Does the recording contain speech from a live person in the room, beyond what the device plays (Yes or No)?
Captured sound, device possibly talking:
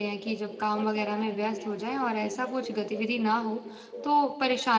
Yes